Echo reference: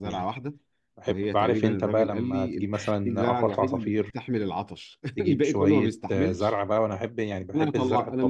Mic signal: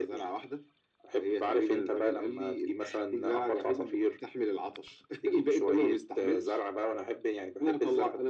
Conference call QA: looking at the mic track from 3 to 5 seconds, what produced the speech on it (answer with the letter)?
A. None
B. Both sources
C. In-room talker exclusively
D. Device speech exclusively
D